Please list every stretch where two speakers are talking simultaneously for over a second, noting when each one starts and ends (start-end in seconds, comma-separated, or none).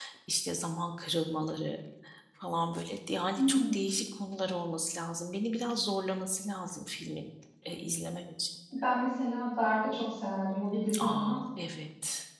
none